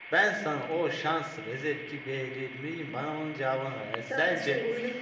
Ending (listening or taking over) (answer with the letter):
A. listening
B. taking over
B